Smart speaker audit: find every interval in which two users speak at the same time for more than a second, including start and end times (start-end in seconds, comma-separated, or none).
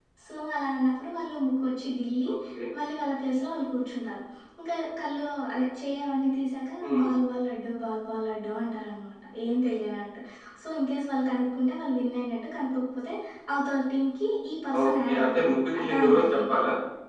14.8-16.5